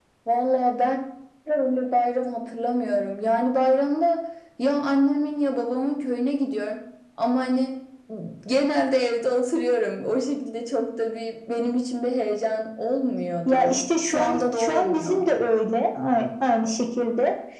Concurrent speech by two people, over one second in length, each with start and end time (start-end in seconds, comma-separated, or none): 13.5-15.2